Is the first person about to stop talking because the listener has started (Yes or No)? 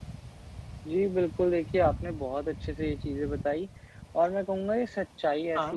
No